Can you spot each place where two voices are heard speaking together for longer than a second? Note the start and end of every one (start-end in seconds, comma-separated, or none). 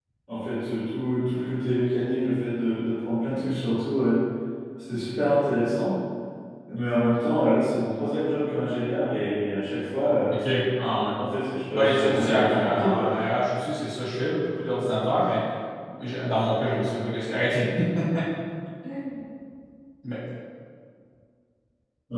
11.7-13.1